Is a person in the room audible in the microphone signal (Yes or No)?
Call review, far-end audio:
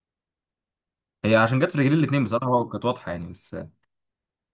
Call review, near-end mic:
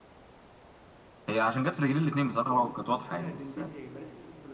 Yes